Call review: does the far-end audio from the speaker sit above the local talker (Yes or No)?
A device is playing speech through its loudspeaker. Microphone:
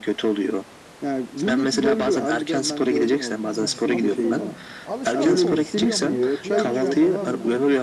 Yes